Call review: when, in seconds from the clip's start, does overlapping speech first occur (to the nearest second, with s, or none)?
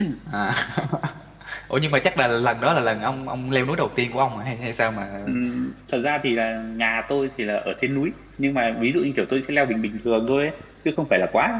none